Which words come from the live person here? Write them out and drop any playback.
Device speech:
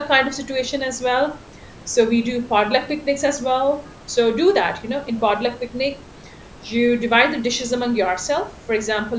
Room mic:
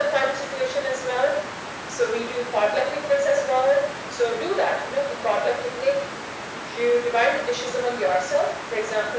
none

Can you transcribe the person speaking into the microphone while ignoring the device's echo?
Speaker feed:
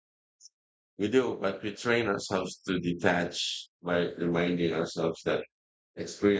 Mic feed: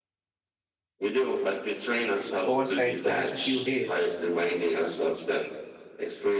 oversight for just a few days.

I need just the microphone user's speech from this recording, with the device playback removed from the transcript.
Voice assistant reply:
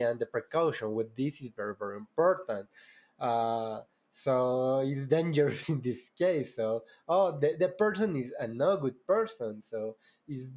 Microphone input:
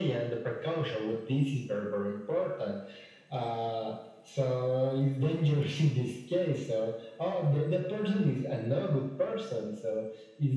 none

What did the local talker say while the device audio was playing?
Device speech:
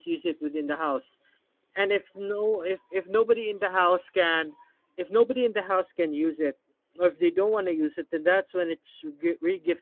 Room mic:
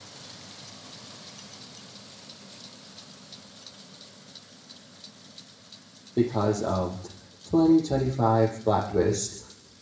because of t- 2025 plot twist.

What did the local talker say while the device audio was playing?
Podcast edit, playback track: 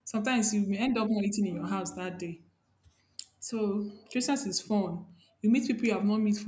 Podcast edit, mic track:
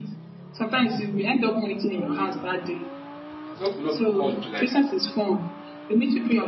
I said, hope you not be called to like

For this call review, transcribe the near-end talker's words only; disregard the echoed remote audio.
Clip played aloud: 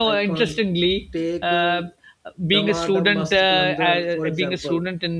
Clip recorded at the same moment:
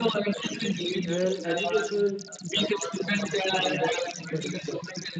and educational

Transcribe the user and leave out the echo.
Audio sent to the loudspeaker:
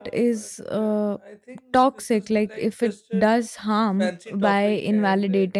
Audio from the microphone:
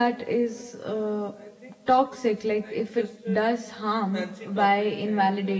none

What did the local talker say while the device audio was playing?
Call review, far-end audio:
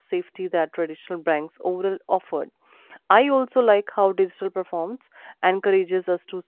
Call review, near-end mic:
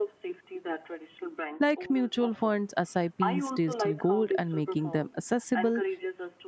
like mutual funds, SIPs, digital gold, and making them accessible

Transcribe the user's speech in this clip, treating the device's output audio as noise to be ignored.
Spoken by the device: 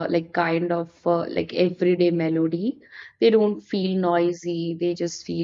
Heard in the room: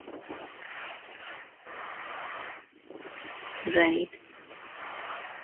right

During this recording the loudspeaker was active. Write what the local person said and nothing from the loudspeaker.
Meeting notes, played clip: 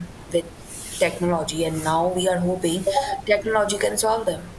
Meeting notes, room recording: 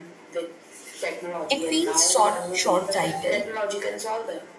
It feels short, short-sighted,

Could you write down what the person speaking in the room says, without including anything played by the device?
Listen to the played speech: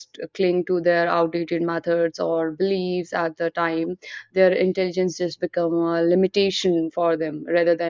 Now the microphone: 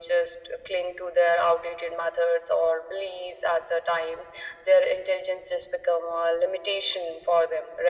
none

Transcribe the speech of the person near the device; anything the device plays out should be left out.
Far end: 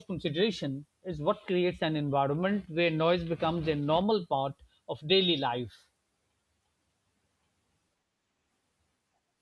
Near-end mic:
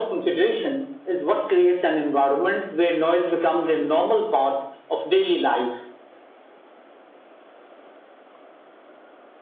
none

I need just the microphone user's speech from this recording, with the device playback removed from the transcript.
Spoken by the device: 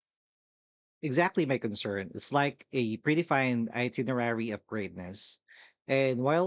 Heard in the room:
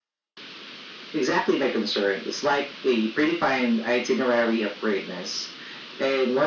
none

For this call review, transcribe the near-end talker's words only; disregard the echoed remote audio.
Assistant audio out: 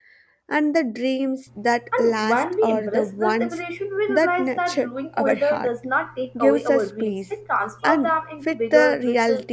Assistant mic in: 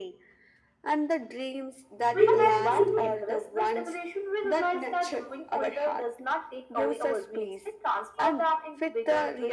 we can keep

